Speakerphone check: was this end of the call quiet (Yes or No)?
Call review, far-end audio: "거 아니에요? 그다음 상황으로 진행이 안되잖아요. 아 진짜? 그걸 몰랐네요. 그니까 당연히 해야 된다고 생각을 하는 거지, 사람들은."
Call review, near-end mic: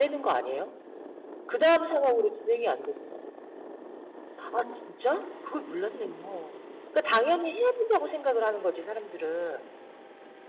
Yes